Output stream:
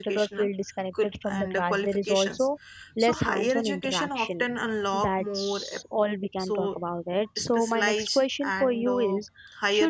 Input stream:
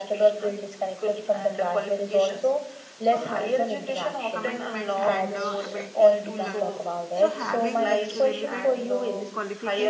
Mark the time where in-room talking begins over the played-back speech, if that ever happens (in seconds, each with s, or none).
4.3 s